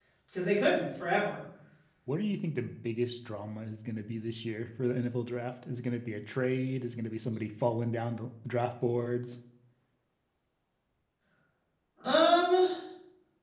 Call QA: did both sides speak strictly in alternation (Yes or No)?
Yes